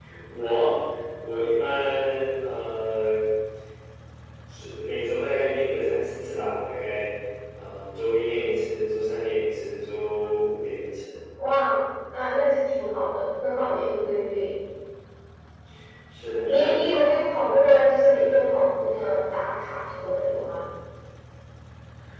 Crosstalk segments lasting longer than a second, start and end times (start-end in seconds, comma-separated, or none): none